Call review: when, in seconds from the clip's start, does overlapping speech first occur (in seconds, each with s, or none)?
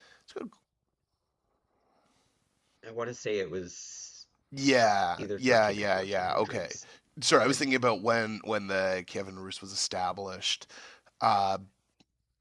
5.2 s